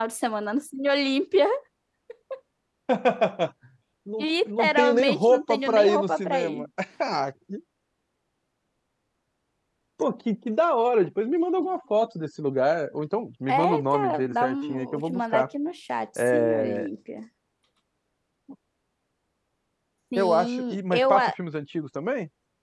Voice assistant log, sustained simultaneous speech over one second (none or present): present